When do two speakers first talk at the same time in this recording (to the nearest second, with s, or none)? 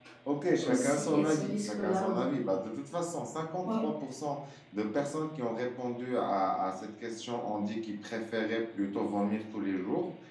1 s